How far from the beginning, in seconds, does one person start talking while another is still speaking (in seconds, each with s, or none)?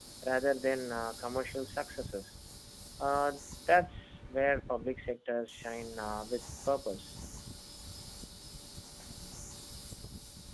none